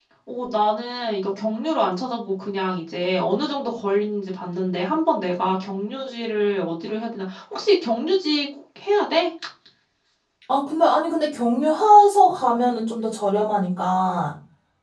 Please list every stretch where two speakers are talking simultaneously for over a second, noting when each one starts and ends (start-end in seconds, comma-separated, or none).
none